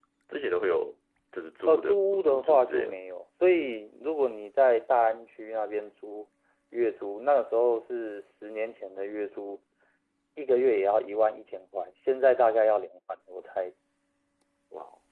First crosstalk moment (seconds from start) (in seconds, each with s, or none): 1.7 s